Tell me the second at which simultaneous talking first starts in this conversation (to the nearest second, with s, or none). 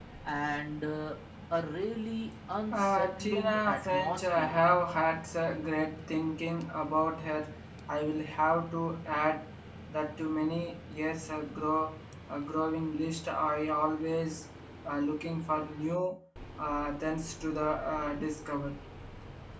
3 s